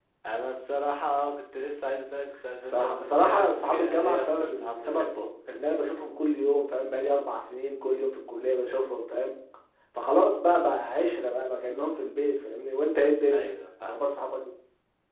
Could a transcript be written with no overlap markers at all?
No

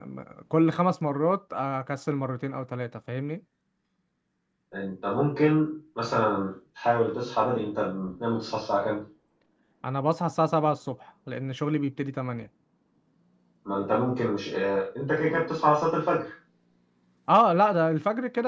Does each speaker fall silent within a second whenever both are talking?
Yes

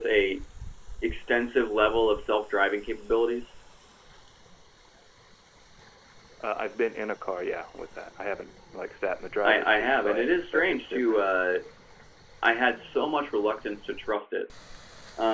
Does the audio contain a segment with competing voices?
Yes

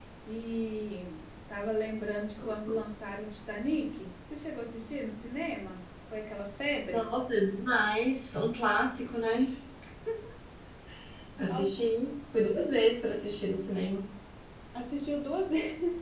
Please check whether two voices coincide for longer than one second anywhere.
No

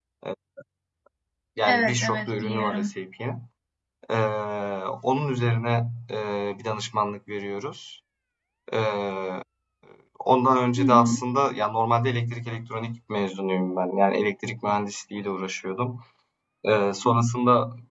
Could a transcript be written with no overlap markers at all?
No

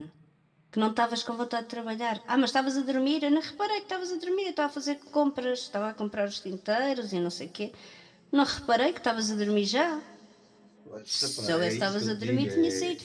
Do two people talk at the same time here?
Yes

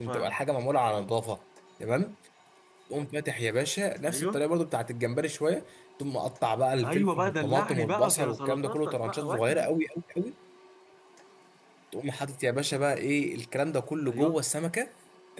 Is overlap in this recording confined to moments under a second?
No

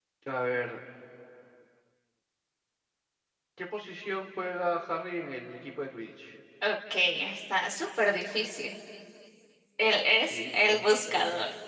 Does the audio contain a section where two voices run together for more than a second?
Yes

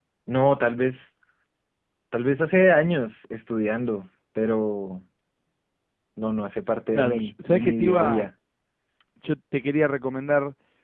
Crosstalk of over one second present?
Yes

